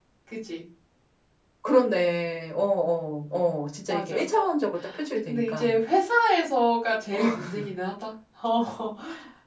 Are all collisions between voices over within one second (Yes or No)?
Yes